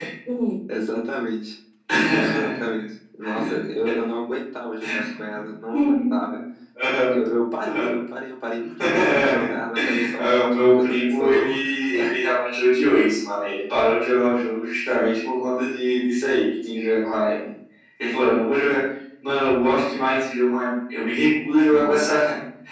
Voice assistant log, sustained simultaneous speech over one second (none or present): present